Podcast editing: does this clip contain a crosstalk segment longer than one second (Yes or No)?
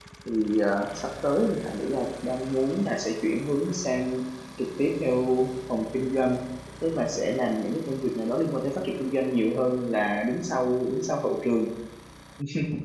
No